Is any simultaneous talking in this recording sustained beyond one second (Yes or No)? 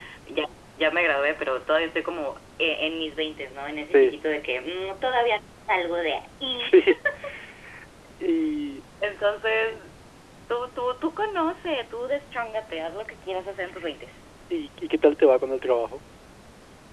No